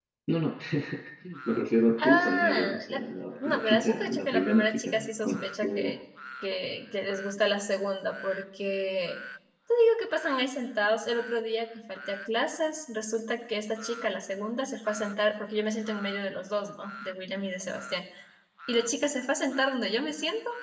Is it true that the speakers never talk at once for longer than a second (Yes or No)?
No